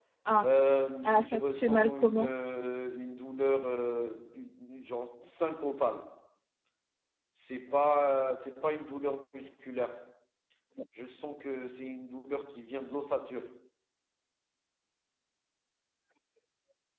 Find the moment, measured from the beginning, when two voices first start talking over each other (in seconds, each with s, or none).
1.1 s